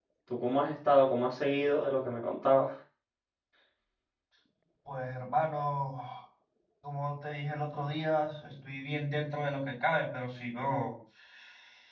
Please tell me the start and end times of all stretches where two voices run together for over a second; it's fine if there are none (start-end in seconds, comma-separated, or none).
none